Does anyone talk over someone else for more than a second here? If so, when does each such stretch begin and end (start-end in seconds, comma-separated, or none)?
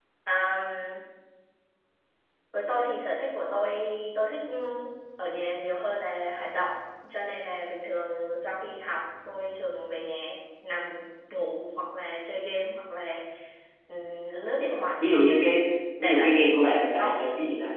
16.0-17.2